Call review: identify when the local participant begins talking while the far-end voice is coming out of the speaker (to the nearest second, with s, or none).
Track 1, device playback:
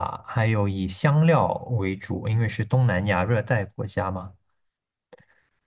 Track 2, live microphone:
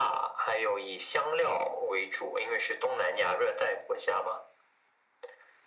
none